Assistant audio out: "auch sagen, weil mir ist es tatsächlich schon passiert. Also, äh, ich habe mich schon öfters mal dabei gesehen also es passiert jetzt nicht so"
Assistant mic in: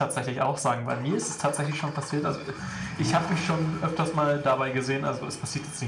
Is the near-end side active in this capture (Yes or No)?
No